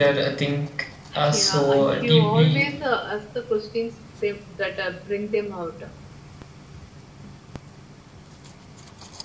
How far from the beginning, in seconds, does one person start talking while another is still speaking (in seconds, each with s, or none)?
1.3 s